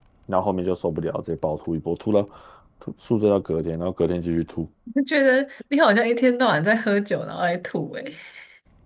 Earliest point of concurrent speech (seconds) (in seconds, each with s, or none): none